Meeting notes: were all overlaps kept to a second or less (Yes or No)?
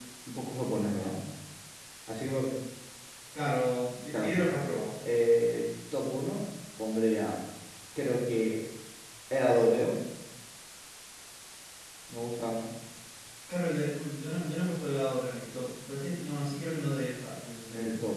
Yes